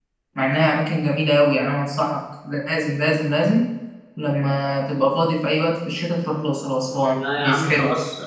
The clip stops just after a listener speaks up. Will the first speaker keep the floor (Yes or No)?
No